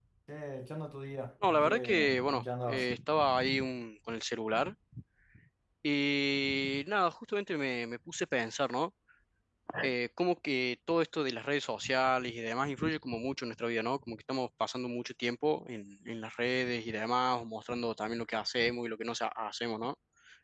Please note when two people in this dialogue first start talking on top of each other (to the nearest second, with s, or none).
1 s